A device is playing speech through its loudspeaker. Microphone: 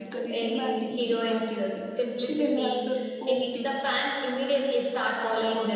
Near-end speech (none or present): present